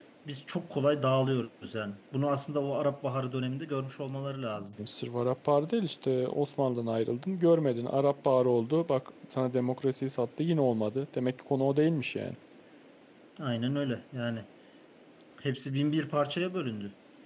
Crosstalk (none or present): none